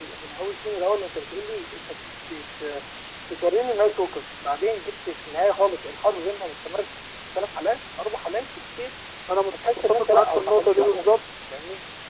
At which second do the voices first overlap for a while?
10 s

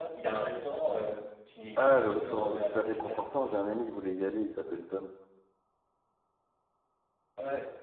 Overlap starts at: 2 s

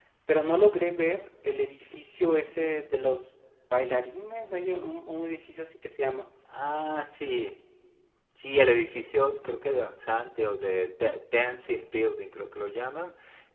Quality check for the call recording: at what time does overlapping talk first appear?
none

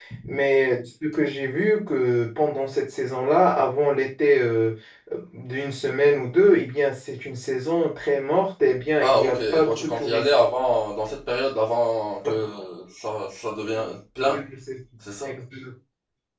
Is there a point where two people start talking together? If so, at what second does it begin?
9 s

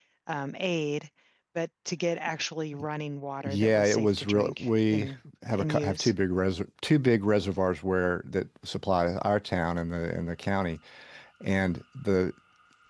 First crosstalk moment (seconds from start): 3 s

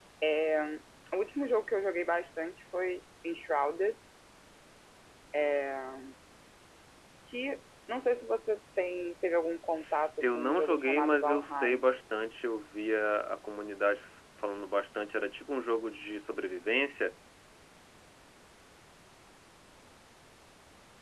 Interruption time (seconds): 10 s

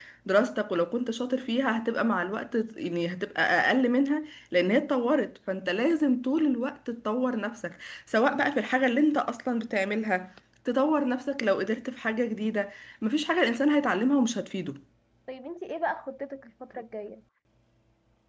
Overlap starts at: none

